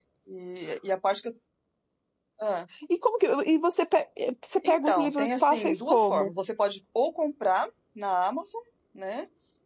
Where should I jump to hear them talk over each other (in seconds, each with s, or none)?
4.6 s